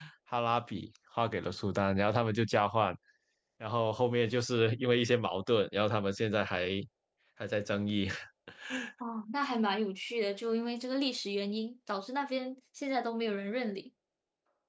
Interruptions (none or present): none